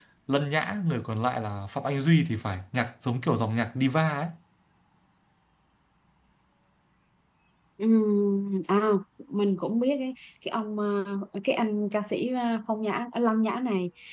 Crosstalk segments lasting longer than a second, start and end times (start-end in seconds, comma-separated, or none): none